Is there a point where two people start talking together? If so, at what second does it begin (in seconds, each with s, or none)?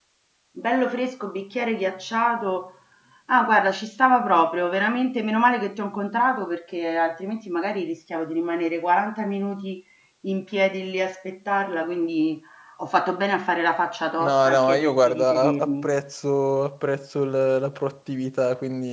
14.2 s